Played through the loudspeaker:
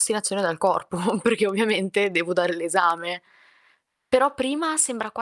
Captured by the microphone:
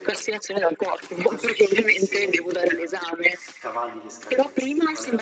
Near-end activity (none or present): present